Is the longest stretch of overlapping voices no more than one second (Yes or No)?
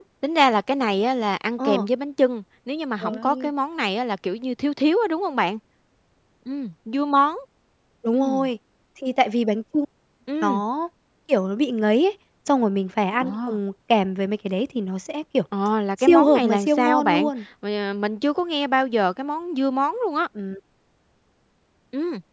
No